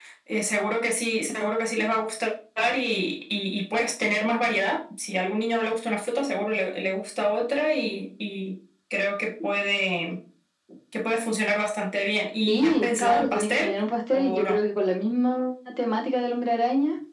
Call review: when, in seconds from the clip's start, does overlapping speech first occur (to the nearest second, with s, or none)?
12 s